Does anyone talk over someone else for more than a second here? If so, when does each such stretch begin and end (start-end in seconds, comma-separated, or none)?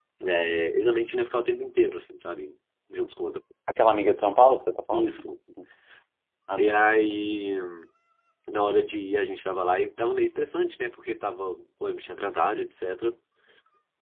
none